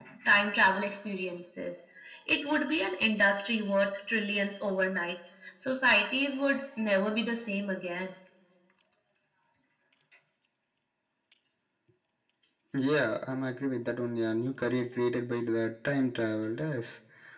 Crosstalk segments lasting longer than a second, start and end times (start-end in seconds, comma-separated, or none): none